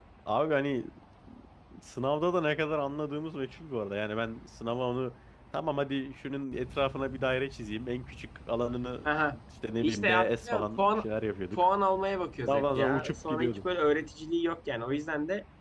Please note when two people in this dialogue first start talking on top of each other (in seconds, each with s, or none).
9.8 s